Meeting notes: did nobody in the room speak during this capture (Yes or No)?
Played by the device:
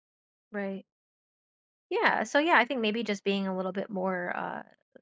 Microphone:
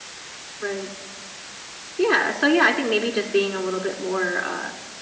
Yes